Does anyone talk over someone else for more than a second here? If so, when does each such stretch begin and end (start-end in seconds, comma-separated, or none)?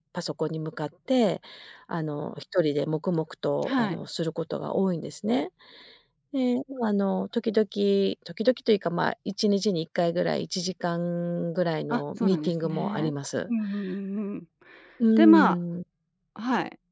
11.9-13.1